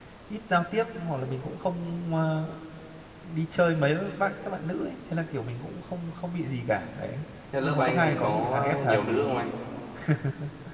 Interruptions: present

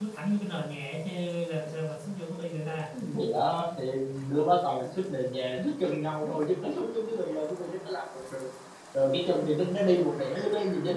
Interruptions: none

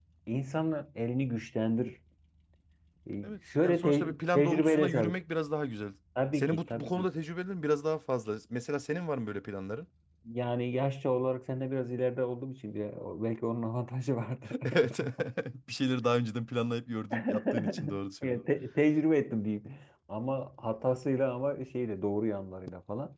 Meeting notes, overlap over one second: present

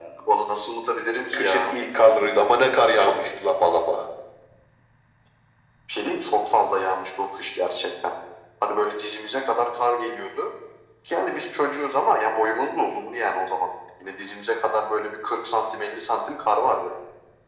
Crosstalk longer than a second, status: none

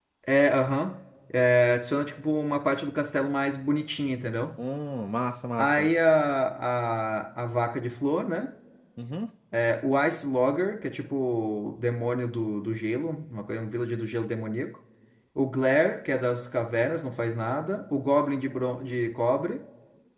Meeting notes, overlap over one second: none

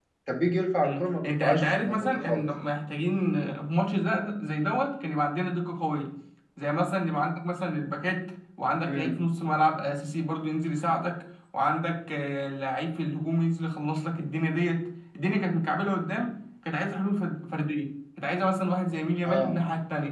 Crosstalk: present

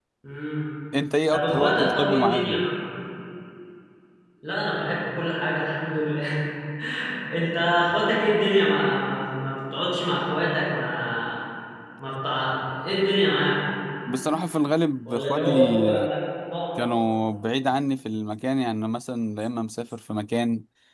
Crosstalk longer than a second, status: present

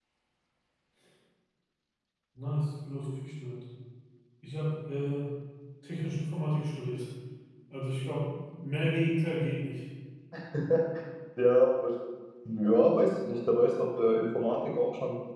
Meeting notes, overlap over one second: none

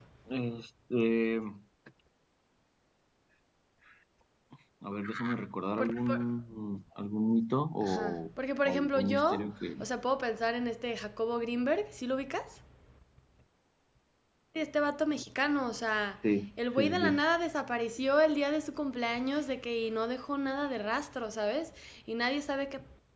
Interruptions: present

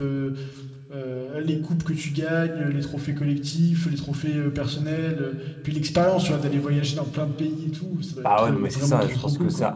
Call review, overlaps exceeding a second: present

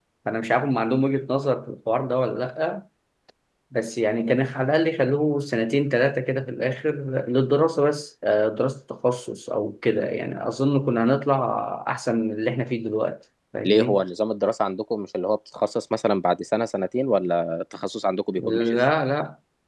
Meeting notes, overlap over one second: none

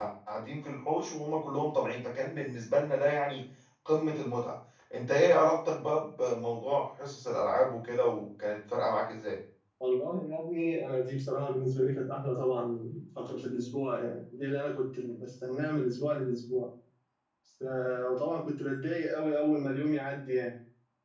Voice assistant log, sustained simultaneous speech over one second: none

